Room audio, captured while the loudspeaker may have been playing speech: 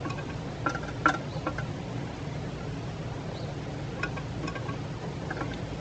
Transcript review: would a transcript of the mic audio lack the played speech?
Yes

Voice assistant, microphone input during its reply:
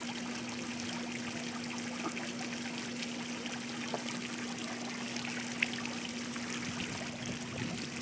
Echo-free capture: Yes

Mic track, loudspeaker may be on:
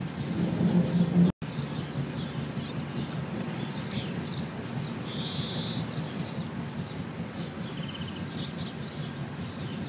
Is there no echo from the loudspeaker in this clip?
Yes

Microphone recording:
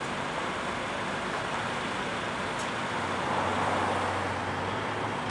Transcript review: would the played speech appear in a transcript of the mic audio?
No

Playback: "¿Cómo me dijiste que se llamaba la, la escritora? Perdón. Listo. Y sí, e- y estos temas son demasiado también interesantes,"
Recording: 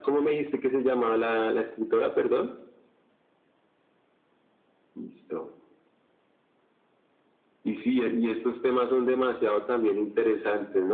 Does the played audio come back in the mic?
Yes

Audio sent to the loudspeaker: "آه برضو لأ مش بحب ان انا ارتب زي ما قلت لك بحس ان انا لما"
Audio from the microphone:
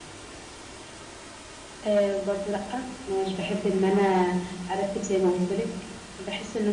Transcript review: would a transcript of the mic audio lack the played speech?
No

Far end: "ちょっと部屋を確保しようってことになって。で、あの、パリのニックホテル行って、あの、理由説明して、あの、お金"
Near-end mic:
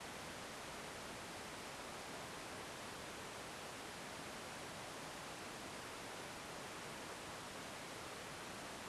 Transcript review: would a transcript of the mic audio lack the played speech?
Yes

